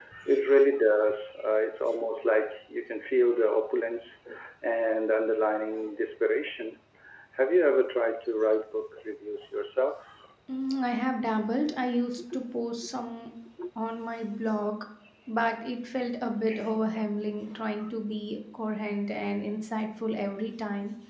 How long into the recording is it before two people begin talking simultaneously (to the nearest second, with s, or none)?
none